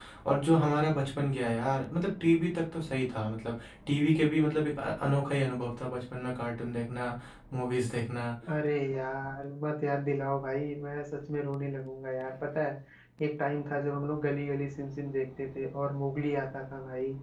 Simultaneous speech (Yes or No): No